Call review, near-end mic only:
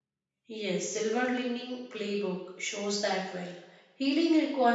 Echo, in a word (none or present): none